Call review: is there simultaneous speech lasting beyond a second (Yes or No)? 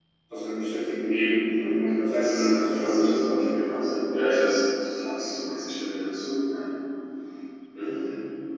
Yes